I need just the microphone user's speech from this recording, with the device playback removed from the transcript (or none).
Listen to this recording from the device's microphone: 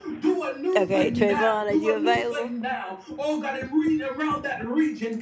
Okay, Trayvon, are you available?